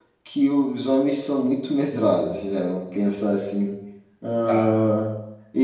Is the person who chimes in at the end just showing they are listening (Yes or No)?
Yes